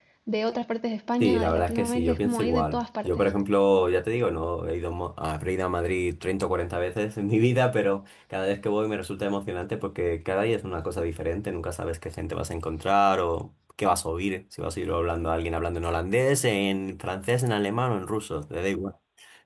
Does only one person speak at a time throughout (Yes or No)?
No